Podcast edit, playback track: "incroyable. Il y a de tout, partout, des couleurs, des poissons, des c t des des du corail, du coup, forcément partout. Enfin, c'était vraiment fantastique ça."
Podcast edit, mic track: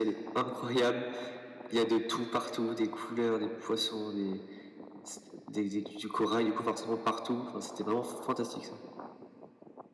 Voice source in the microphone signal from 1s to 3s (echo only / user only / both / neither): echo only